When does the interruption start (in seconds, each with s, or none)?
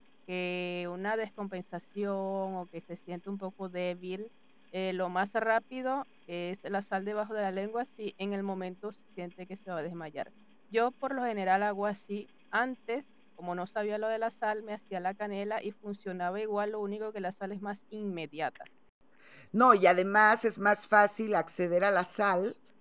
none